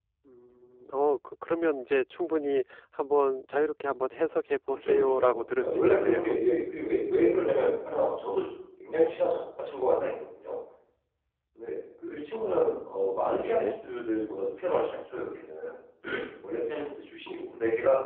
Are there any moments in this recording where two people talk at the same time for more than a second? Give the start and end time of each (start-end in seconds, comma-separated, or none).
4.7-6.4